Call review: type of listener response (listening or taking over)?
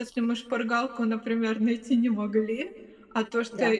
listening